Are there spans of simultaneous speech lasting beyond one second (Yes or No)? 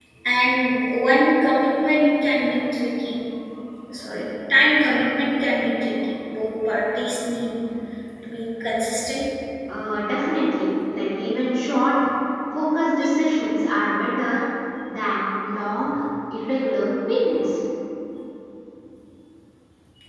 No